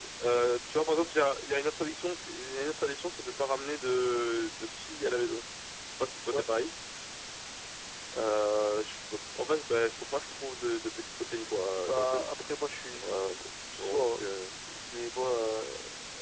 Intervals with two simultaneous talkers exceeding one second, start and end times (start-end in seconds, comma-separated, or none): none